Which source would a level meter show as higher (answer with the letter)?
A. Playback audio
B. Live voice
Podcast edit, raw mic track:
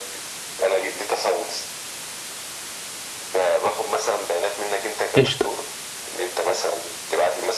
B